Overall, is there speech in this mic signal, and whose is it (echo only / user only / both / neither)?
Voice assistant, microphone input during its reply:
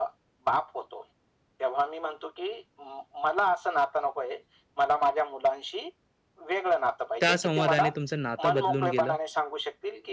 both